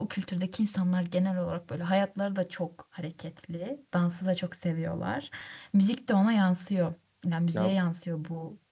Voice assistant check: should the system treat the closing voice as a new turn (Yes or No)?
No